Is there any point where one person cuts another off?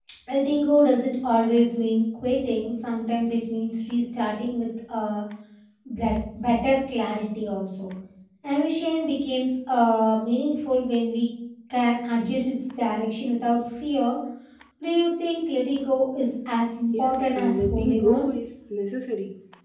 Yes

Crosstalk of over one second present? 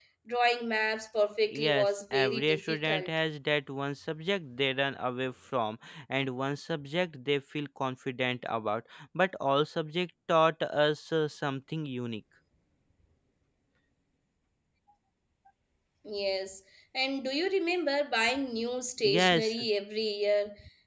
Yes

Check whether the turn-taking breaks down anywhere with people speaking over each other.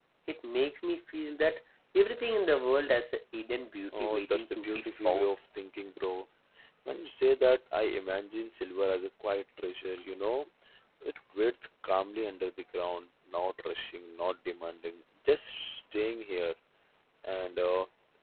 Yes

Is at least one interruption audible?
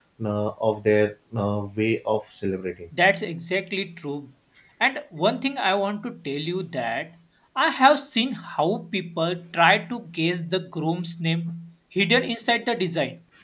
No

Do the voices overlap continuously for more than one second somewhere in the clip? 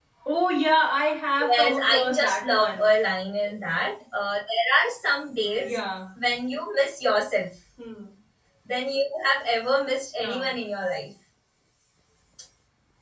Yes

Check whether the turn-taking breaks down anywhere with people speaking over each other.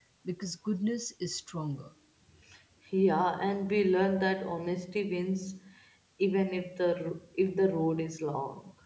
No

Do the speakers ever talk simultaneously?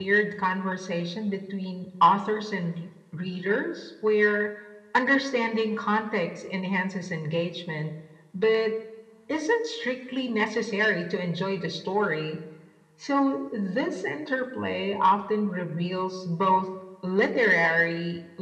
No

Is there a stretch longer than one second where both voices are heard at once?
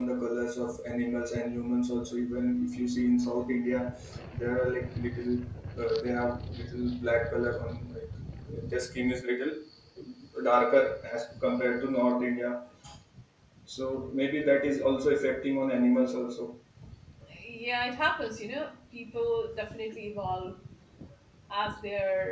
No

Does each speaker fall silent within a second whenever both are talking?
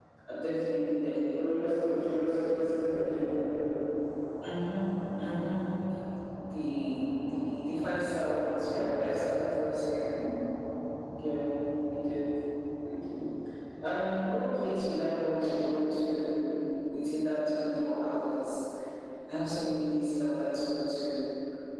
No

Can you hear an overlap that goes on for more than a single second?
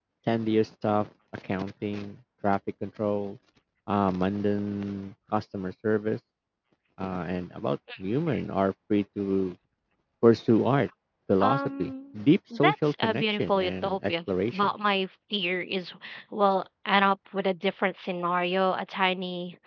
Yes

